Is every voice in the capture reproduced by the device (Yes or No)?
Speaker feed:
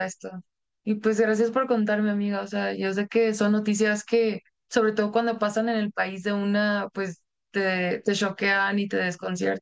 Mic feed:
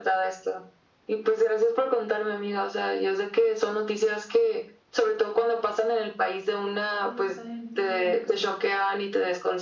No